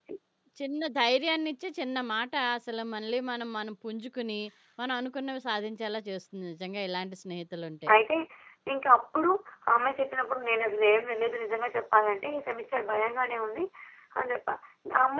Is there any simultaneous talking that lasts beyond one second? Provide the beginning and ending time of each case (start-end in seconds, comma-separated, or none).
none